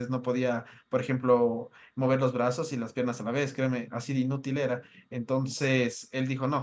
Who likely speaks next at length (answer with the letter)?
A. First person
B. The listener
A